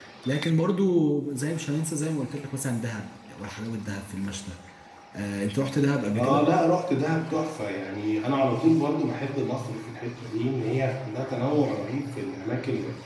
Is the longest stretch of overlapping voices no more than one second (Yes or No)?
Yes